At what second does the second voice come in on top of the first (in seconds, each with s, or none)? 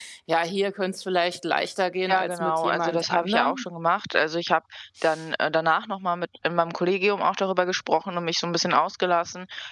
2.1 s